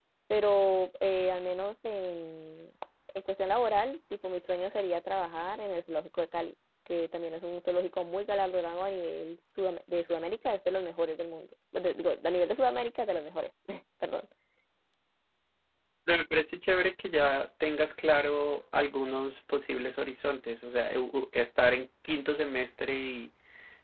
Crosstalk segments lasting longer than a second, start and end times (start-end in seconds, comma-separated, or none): none